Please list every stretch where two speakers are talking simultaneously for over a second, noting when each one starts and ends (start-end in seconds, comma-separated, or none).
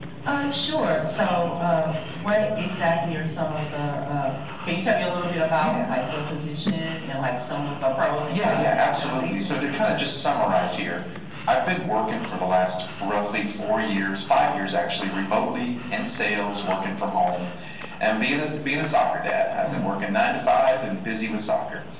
8.3-9.6